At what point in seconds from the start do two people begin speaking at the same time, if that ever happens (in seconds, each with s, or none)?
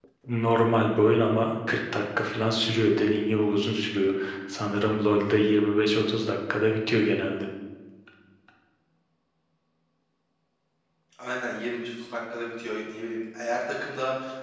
none